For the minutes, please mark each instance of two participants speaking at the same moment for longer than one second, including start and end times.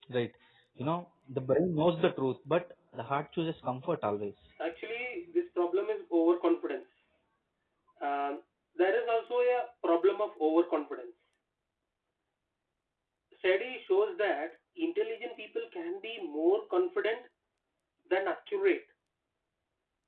none

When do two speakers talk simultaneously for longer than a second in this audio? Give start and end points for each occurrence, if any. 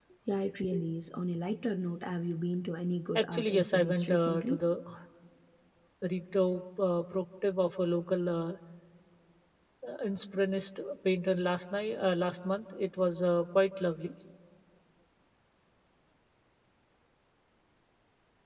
3.1-4.6

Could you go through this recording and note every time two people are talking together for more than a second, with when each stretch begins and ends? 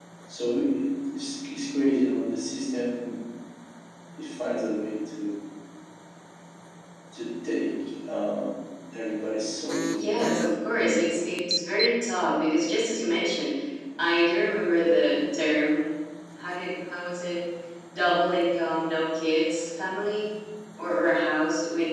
10.0-11.2

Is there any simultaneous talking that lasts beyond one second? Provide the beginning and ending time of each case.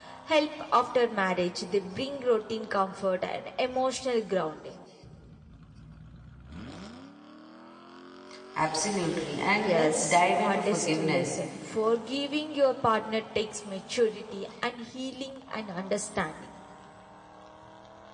9.5-11.4

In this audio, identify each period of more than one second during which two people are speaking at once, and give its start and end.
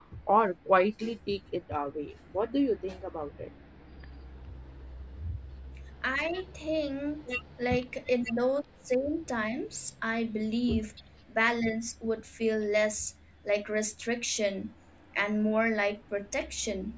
none

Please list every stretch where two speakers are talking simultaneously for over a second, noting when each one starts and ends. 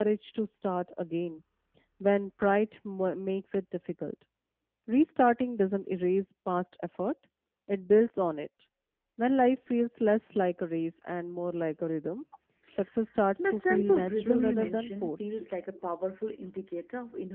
13.4-15.1

